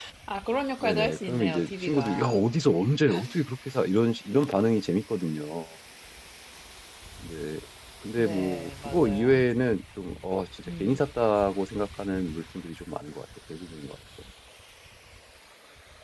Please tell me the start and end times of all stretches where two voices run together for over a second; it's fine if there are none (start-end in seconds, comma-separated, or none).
0.8-2.4, 8.2-9.4